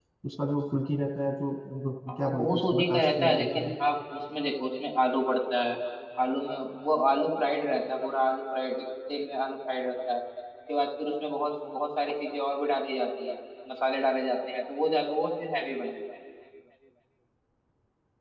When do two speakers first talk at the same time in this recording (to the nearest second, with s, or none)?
2 s